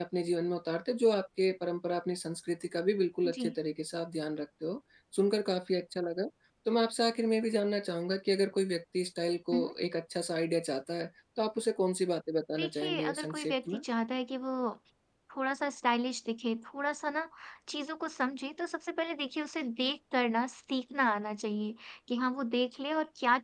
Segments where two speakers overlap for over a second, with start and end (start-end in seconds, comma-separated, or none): 12.5-13.8